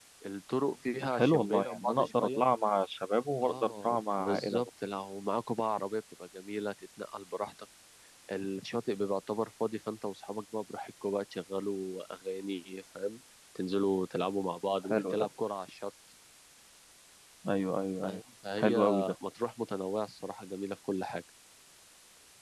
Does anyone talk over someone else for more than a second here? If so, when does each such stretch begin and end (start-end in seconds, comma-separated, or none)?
1.1-2.4, 3.4-4.7